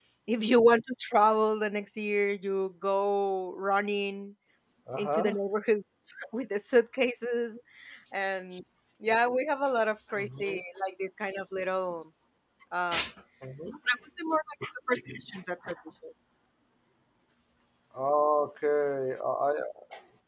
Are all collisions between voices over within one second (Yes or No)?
Yes